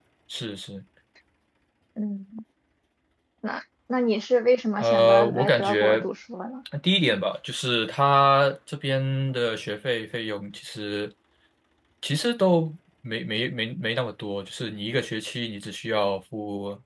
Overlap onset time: 5 s

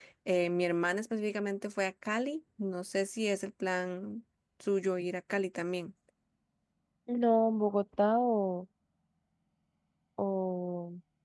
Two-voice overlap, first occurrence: none

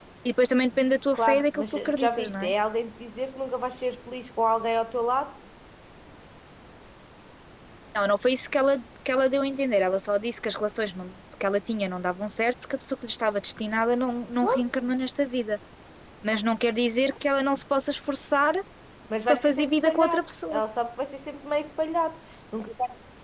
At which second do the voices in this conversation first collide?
1 s

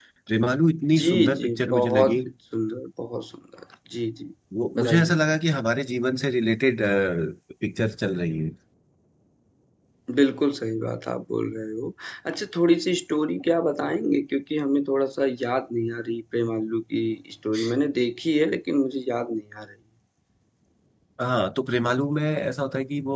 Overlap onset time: 1 s

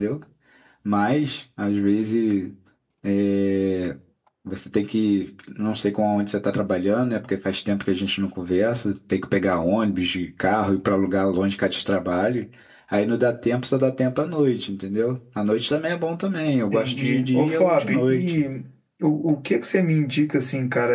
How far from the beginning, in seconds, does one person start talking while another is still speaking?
17 s

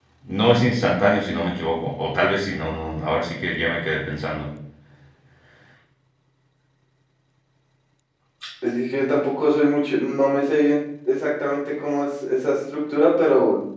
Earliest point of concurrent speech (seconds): none

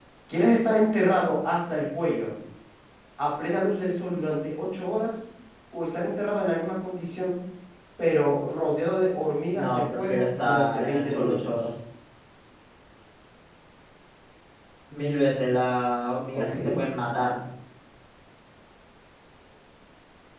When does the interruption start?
10 s

